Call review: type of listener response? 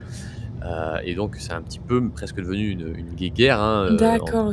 taking over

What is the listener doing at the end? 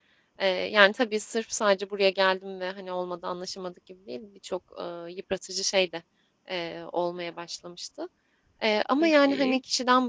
listening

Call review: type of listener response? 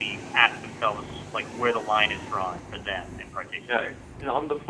taking over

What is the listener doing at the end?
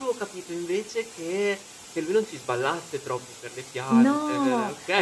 taking over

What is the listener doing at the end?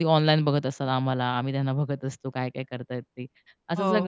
listening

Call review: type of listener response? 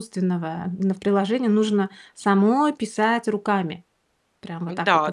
taking over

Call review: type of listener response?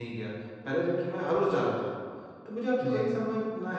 listening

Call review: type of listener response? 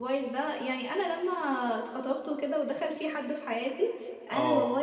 listening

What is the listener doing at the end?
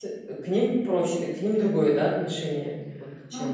taking over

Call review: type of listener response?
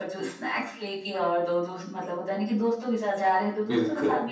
listening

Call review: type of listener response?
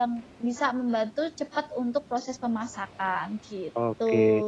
taking over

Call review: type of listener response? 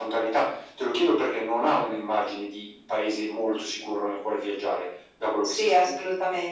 taking over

